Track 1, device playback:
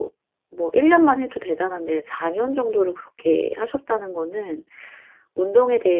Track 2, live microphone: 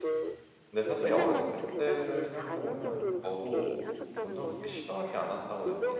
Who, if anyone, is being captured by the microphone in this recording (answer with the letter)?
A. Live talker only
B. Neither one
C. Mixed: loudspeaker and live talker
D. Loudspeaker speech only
C